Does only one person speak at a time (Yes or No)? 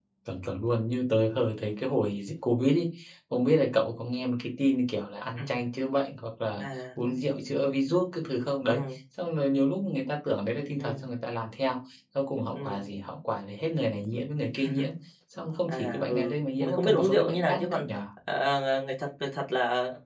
No